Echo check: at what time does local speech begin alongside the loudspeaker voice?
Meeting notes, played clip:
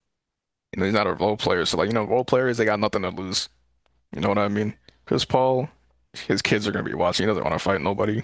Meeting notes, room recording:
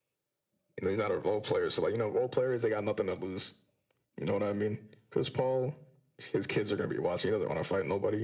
none

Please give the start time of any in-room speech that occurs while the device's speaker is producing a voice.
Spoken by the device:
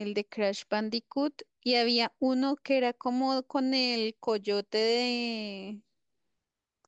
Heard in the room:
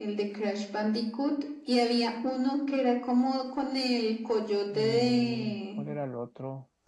5 s

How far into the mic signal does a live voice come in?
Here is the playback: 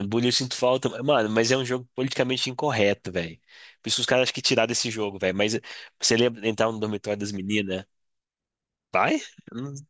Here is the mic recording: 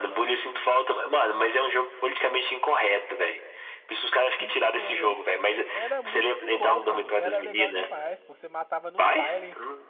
4 s

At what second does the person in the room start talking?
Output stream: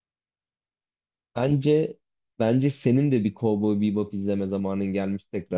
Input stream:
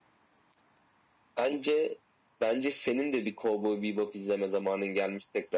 none

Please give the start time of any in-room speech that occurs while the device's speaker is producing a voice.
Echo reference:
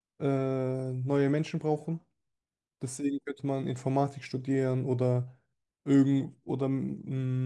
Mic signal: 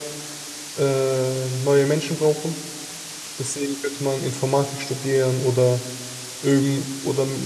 none

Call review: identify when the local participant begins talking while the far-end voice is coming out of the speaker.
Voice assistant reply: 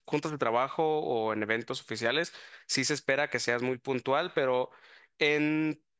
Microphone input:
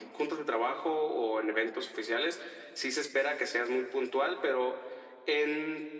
none

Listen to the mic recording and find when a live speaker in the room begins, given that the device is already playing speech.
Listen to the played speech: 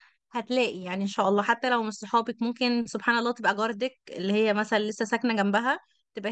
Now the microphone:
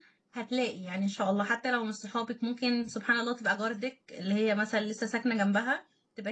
none

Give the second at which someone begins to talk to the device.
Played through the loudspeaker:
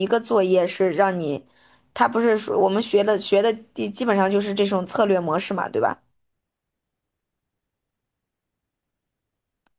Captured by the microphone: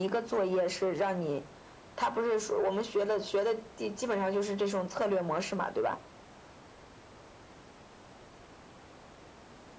none

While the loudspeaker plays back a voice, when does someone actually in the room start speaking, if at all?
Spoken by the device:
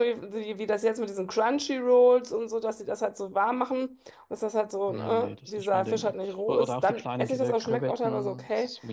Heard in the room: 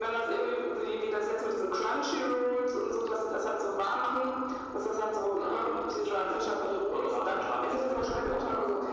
none

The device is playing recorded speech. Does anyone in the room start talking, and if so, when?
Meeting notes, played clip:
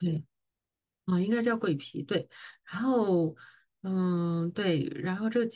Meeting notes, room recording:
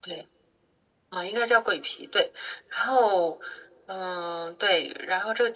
none

